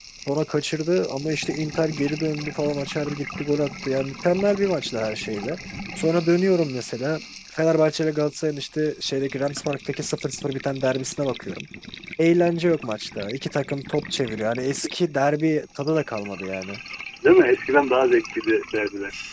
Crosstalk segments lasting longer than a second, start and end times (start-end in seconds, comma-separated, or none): none